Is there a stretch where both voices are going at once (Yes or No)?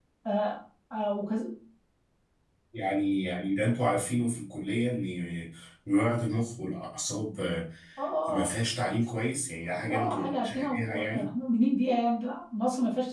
Yes